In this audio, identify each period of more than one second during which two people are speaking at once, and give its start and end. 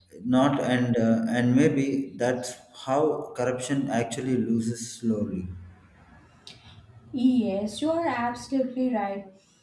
none

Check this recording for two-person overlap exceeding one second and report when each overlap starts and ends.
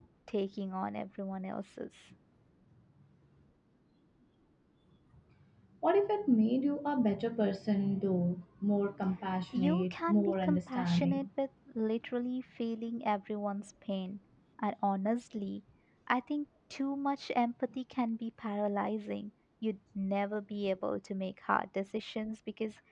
9.6-11.3

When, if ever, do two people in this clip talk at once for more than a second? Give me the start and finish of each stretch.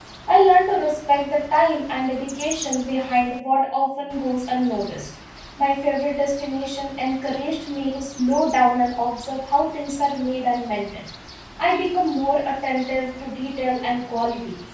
none

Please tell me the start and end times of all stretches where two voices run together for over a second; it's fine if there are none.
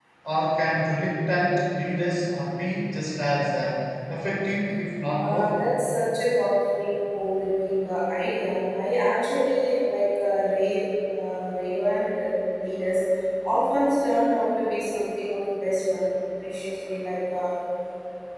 none

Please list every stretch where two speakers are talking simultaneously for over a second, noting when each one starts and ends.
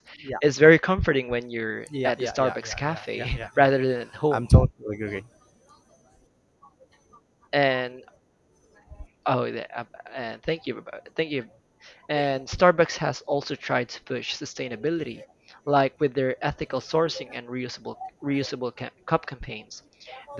2.0-3.7

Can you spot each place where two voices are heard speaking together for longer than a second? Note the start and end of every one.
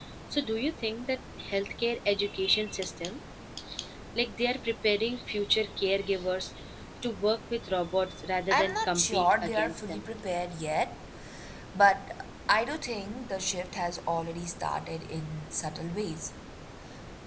8.5-10.1

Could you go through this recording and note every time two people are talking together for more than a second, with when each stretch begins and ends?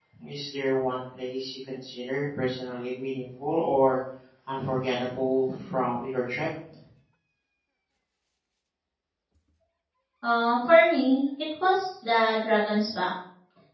none

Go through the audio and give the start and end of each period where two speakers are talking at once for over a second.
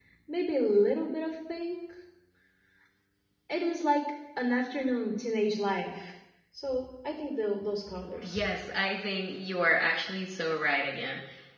none

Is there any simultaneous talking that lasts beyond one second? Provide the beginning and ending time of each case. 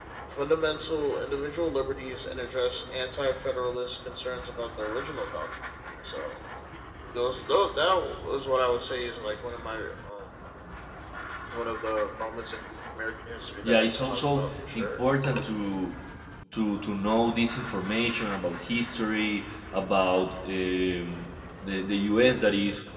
13.6-15.0

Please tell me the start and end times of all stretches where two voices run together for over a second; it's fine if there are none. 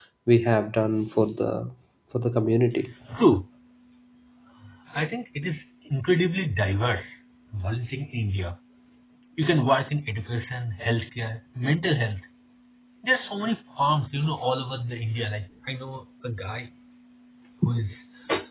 none

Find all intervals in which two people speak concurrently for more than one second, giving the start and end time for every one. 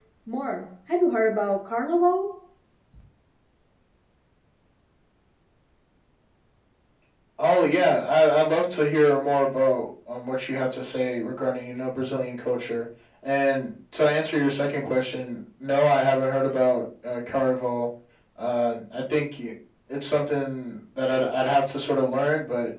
none

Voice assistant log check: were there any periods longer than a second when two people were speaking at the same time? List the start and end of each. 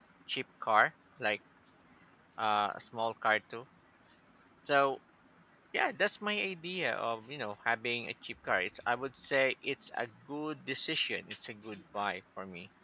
none

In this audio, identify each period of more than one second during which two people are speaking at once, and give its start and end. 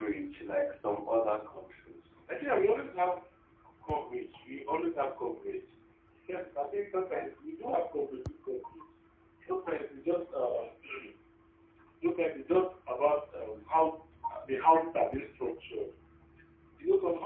none

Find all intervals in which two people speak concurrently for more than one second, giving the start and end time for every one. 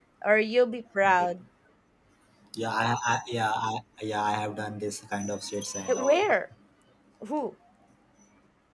none

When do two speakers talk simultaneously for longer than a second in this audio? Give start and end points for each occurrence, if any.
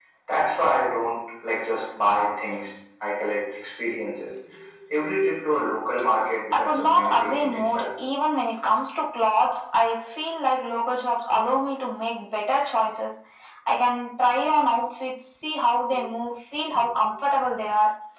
6.5-7.9

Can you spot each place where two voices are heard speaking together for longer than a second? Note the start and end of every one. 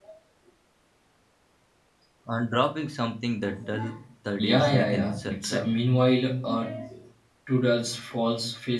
4.3-5.7

